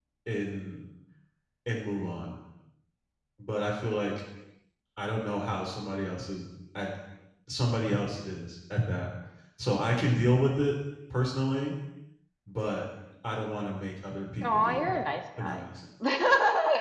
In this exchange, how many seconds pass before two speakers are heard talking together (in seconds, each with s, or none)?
14.4 s